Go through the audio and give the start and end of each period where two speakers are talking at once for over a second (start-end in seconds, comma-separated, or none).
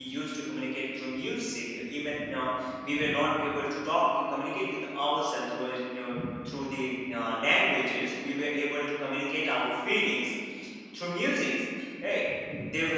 none